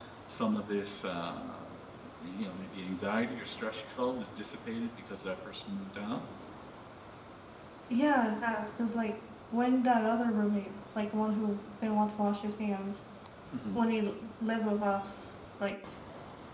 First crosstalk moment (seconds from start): none

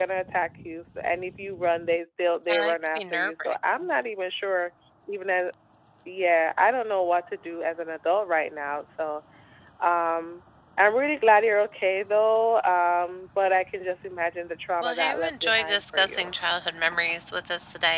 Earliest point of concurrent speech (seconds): 2.5 s

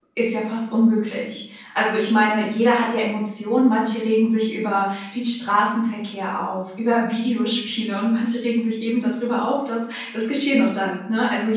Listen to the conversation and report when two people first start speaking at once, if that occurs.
none

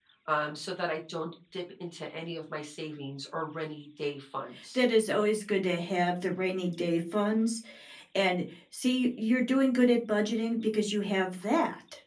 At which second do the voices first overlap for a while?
none

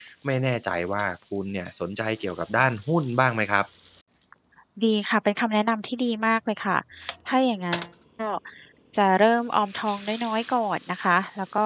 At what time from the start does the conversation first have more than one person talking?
none

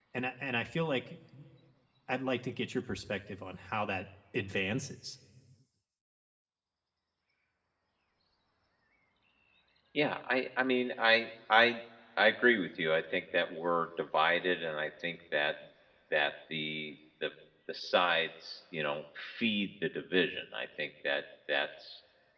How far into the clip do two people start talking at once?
none

